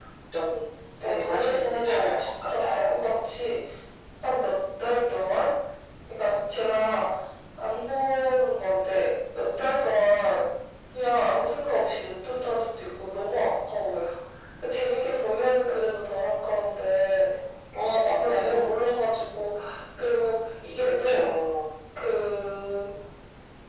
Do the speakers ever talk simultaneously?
Yes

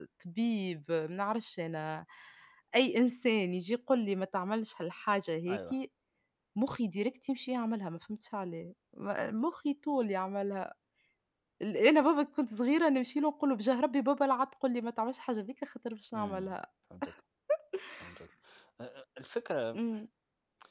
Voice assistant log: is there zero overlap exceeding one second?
Yes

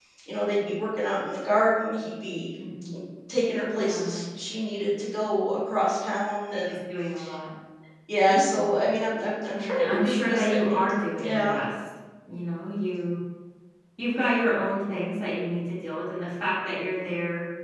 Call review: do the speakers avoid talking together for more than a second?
No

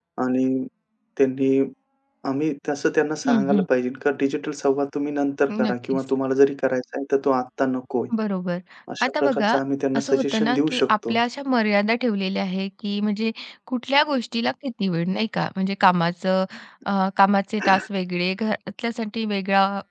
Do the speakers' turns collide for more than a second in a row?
Yes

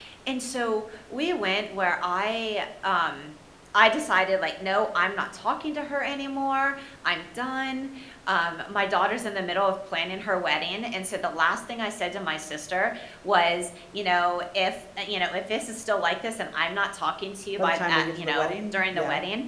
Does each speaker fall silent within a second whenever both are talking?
No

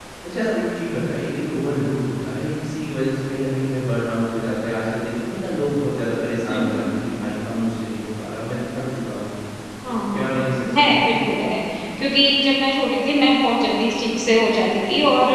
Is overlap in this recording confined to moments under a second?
No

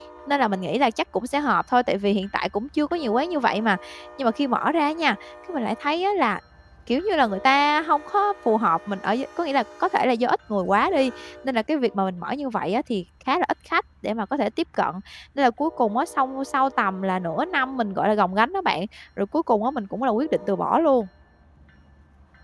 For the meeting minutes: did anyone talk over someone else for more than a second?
No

